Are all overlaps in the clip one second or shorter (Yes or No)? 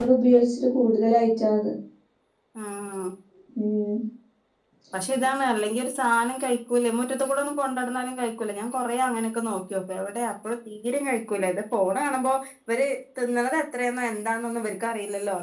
Yes